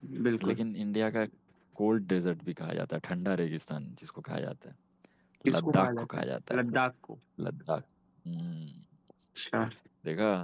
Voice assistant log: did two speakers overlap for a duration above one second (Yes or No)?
Yes